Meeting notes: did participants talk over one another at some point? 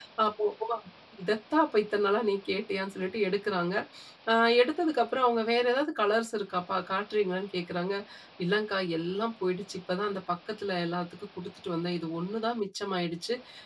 No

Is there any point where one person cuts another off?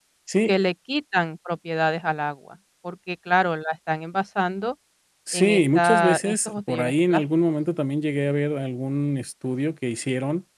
Yes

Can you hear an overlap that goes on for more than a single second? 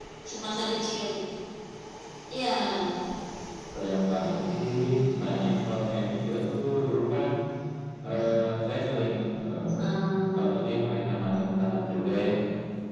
No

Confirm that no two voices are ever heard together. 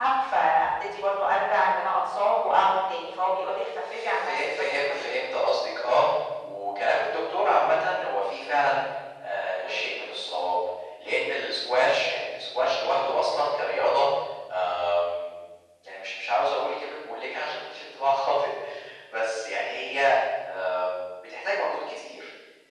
No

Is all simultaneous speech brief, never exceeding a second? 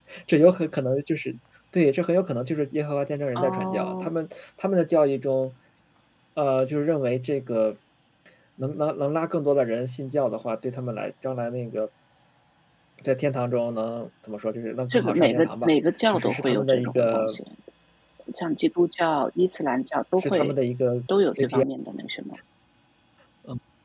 No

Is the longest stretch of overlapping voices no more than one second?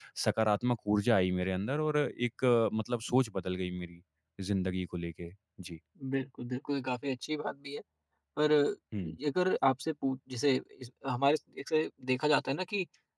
Yes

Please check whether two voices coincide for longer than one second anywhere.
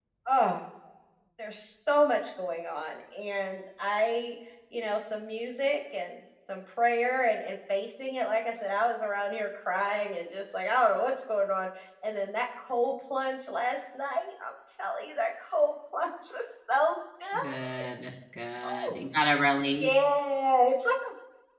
No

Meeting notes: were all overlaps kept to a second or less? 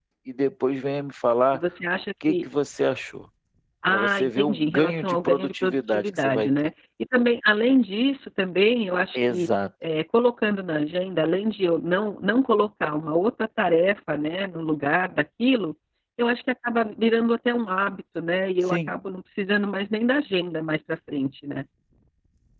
No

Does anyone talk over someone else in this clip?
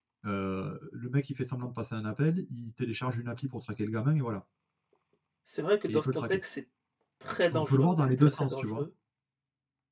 Yes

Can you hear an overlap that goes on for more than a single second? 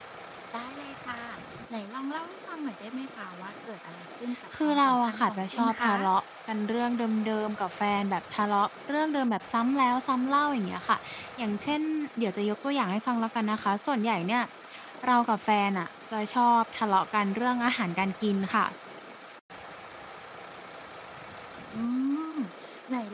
Yes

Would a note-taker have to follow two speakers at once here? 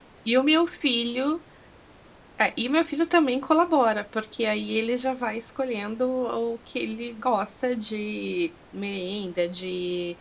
No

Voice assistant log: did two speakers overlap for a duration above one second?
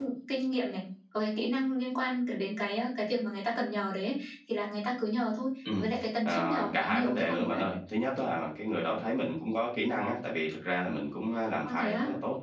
Yes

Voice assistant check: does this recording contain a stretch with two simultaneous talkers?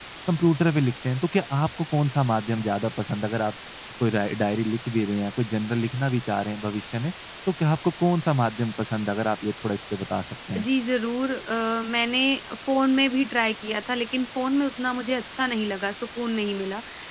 No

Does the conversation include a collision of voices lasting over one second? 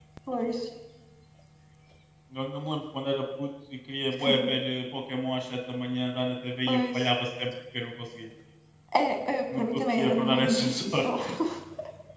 Yes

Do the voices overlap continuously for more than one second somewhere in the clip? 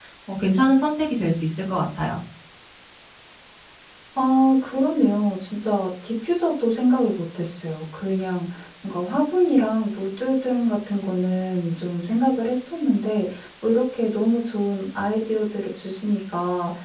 No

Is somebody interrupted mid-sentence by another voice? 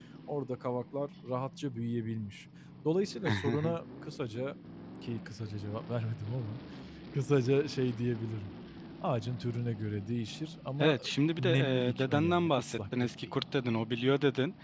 Yes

